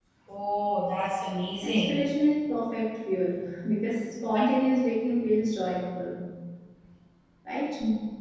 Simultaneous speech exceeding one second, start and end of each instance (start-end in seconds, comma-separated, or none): none